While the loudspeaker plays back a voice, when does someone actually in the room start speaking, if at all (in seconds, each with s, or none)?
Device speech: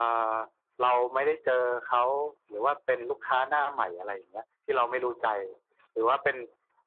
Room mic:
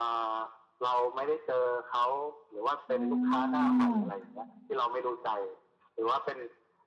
2.9 s